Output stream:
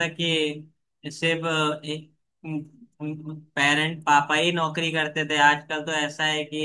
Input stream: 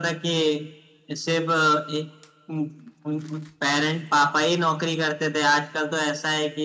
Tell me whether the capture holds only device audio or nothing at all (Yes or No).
Yes